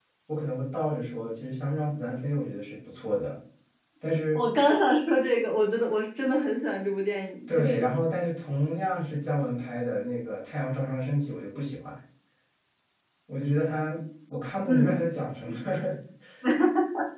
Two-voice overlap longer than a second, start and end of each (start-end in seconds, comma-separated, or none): none